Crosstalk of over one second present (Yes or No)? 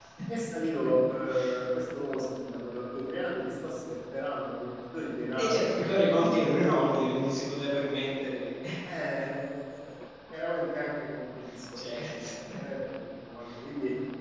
Yes